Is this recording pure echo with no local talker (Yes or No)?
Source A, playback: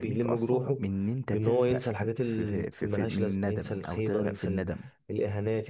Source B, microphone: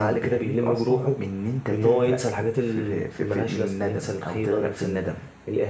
No